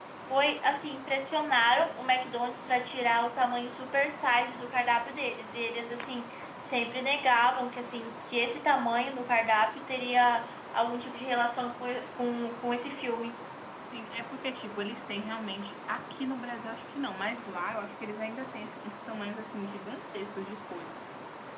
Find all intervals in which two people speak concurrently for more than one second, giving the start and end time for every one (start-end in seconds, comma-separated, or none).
none